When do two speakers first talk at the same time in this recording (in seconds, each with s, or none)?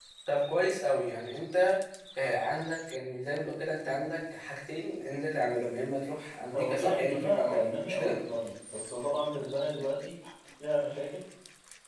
6.5 s